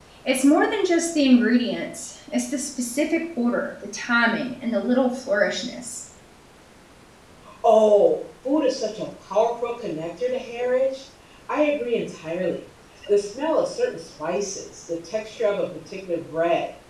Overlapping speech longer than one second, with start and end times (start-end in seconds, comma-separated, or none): none